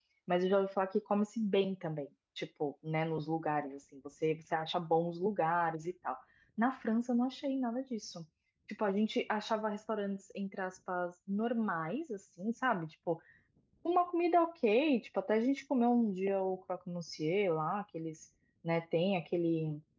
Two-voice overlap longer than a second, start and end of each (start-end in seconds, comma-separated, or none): none